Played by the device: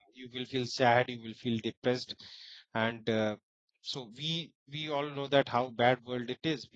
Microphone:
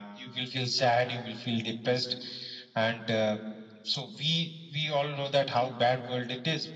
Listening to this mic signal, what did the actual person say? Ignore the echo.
none

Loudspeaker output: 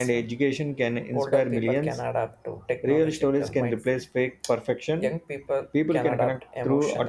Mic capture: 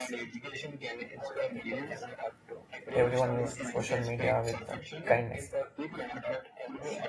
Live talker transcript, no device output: everyone used social media with uh, kindness,

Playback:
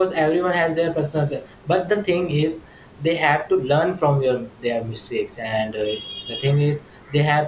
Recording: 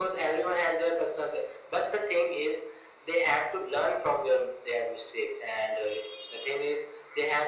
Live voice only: none

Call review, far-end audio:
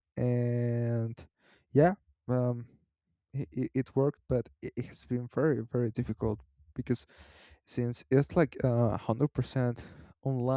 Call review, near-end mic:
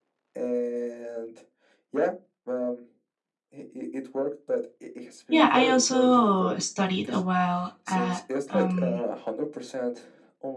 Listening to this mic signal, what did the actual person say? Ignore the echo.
yeah, I also studied a while at um,

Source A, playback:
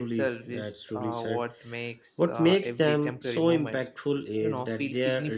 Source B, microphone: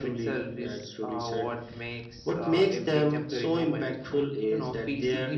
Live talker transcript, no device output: none

